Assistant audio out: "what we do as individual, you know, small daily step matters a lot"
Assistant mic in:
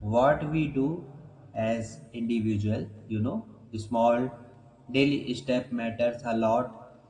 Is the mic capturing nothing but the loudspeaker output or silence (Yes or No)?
Yes